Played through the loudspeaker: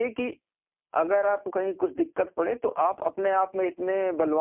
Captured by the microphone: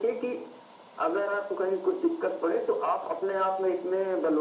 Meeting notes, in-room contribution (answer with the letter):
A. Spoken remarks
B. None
B